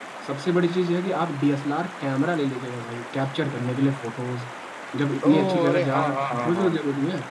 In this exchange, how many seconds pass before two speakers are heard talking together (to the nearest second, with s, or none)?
5 s